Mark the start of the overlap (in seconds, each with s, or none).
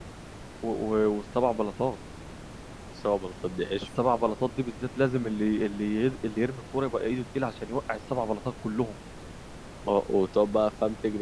none